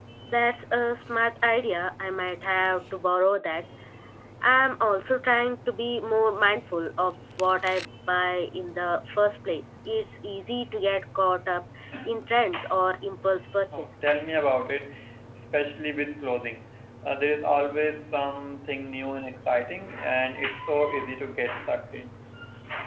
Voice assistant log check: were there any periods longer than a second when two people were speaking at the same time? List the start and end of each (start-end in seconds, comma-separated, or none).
none